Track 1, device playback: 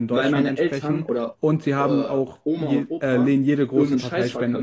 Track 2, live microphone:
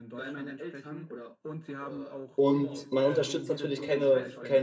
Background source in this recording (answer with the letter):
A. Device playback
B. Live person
A